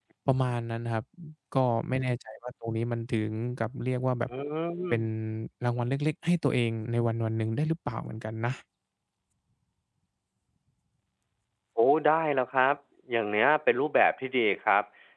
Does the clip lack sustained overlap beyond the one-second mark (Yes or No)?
Yes